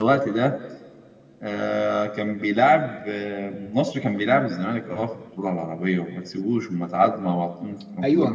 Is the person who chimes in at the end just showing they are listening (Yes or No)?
No